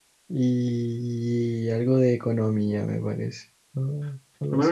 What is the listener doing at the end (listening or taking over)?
taking over